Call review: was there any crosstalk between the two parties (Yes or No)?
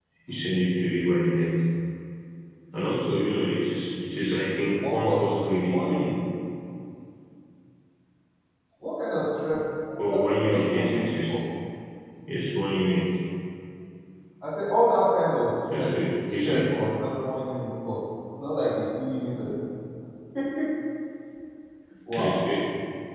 Yes